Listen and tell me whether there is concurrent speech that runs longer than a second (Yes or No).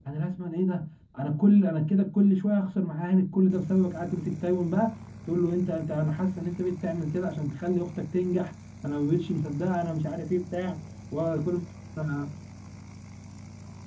No